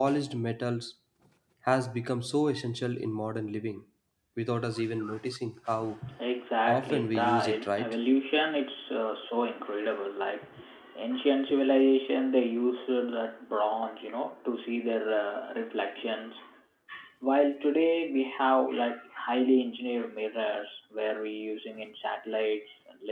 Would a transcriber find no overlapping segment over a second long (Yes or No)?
No